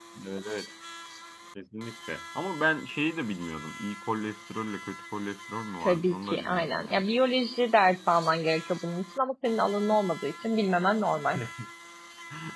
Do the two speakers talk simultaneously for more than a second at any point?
Yes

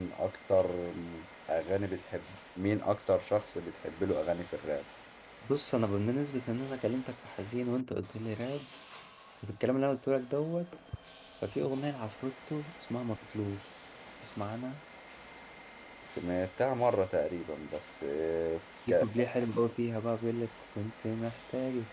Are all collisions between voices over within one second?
Yes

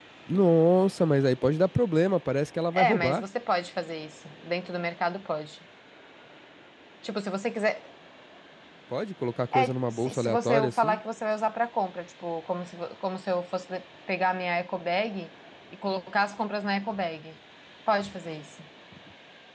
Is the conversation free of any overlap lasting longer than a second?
No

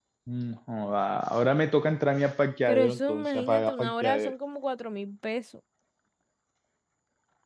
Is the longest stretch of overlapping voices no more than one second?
No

